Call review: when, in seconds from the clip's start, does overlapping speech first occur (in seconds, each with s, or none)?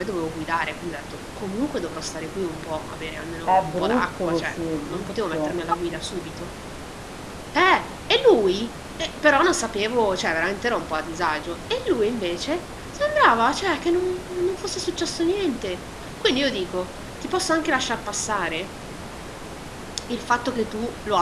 3.5 s